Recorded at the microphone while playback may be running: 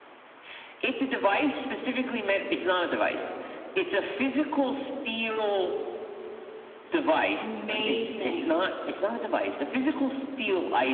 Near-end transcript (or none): Amazing.